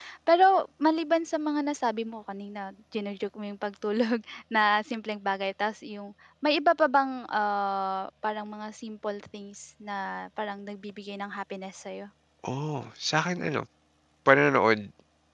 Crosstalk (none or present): none